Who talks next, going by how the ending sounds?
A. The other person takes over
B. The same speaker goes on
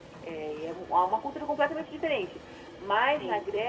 B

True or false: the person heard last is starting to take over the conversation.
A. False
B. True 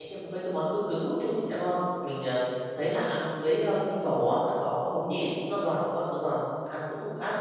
A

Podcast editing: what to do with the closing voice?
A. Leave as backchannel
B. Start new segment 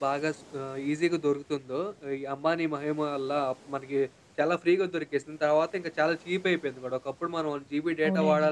B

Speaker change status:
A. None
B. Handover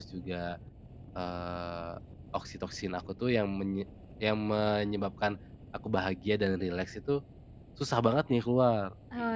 B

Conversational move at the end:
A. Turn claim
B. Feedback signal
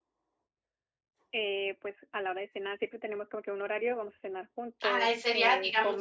A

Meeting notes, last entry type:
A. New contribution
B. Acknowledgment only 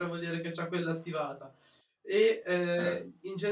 B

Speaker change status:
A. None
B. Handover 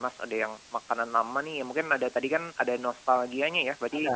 A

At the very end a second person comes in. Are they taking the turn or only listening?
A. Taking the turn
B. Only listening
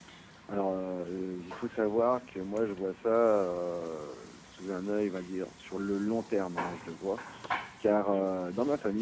B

